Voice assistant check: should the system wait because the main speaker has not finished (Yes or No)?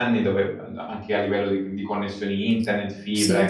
Yes